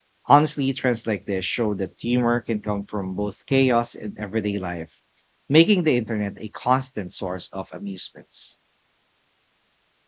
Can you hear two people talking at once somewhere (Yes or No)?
No